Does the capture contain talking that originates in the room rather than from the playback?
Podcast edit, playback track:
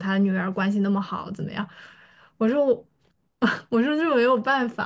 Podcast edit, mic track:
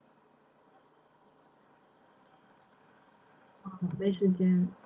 Yes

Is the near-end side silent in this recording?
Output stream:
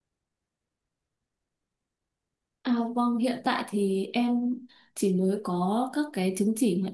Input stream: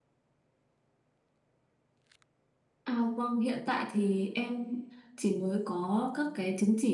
Yes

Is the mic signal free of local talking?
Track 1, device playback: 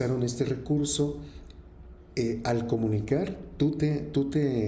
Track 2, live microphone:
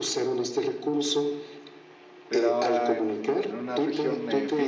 No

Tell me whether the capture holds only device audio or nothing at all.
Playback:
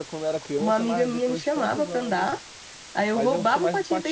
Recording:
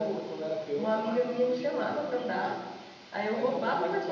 Yes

